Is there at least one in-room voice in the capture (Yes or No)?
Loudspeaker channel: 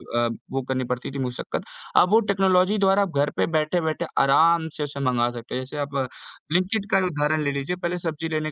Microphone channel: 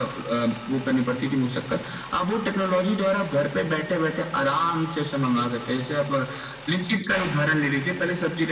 No